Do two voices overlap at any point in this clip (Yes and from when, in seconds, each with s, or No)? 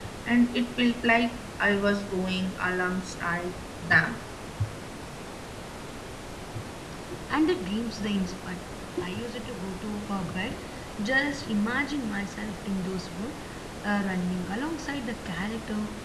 No